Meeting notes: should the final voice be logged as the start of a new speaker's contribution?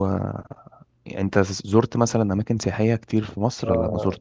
Yes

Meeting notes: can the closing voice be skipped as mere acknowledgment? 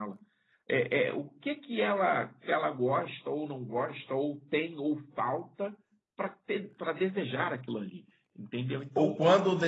No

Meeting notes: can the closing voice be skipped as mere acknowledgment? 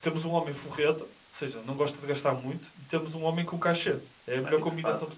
No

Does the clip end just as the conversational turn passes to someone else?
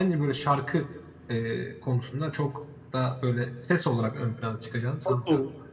Yes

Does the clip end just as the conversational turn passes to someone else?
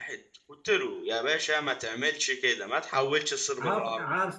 Yes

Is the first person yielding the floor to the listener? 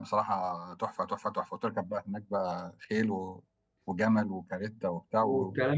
Yes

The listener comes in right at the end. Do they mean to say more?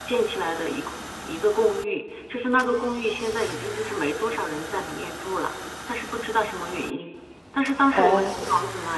No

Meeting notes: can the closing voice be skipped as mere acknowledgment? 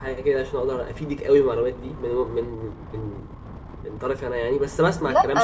No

